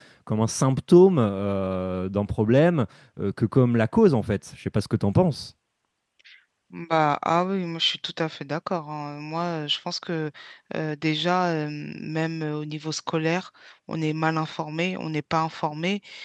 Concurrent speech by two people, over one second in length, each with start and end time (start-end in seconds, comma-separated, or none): none